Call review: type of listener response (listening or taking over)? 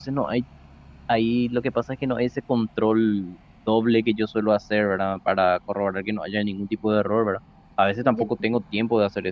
listening